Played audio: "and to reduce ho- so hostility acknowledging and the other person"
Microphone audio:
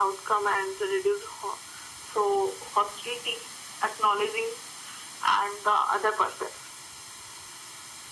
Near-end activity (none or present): none